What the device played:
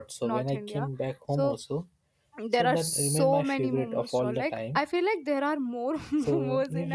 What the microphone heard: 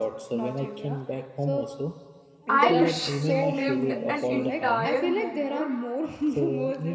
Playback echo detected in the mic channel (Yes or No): Yes